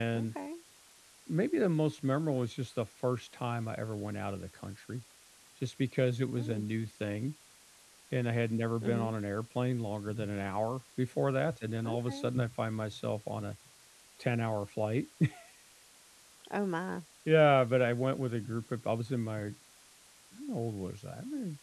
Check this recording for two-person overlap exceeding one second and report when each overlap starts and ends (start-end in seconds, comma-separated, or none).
none